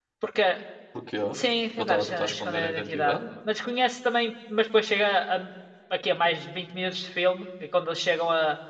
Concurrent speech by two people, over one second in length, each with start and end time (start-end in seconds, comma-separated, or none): 1.8-3.2